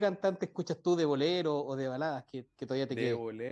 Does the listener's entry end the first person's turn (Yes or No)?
Yes